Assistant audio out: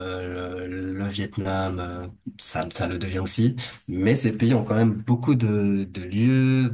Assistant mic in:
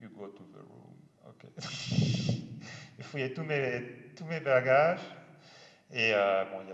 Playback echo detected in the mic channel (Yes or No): No